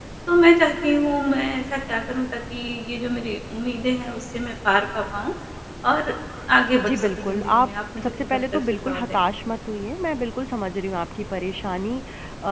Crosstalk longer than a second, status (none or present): present